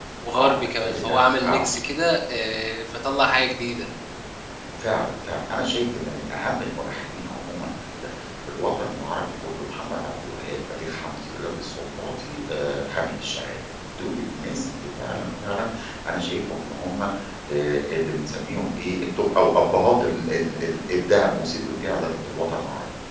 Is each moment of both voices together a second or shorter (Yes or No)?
No